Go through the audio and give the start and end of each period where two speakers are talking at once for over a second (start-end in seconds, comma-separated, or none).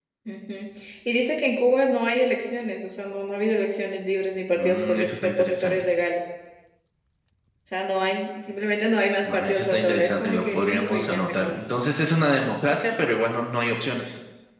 4.6-5.9, 9.2-11.6